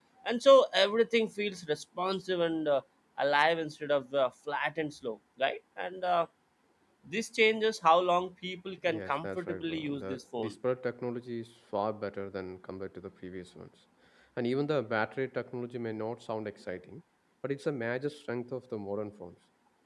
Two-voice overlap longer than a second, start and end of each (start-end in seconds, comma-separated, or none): 8.9-10.5